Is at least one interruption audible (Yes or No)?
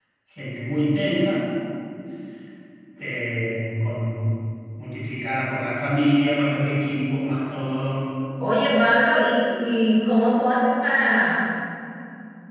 No